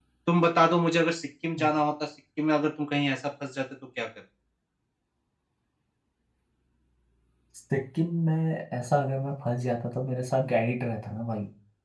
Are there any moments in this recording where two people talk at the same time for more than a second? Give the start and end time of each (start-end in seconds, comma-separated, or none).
none